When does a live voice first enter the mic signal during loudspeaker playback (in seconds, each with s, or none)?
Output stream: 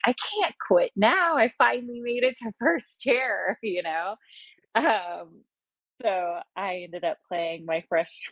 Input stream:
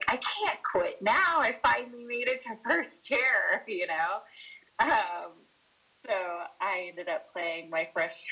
none